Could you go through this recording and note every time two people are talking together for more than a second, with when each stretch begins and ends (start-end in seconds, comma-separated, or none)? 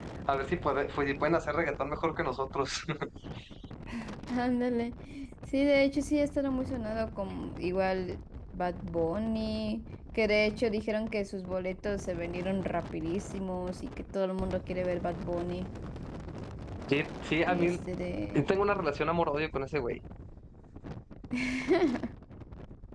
none